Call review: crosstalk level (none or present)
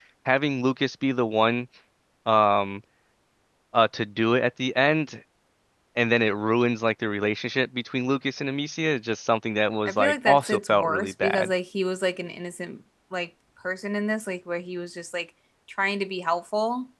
present